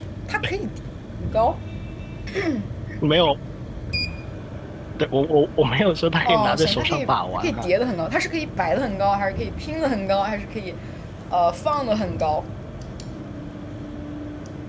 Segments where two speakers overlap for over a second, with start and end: 6.2-7.7

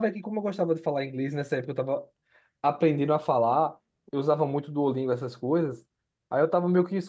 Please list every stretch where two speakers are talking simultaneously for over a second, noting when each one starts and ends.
none

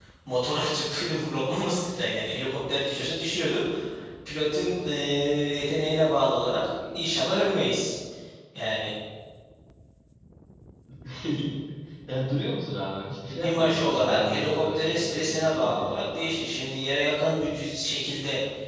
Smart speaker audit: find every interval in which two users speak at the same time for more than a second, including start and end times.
13.3-16.3

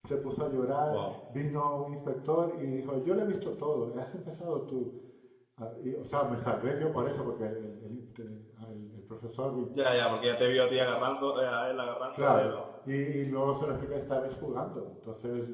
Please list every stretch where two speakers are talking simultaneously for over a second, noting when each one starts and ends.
none

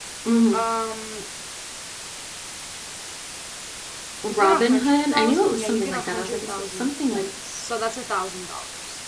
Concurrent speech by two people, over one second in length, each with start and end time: 4.3-7.3

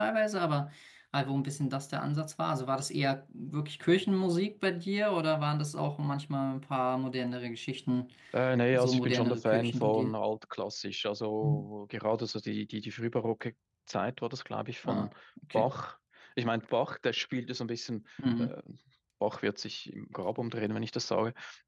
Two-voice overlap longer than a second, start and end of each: 8.7-10.1

